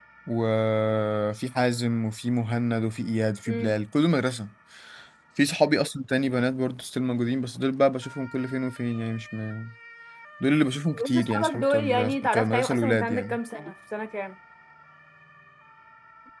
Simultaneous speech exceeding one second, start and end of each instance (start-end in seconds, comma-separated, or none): 10.9-13.4